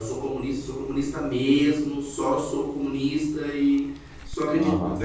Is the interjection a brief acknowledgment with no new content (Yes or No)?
Yes